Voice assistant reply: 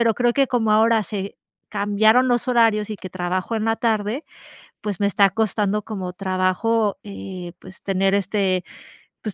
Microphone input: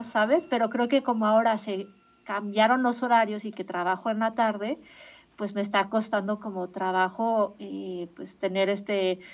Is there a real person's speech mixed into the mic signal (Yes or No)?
No